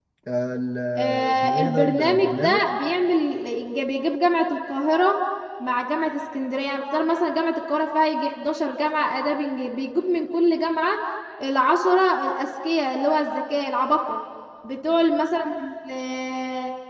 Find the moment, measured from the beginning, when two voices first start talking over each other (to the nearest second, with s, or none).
1 s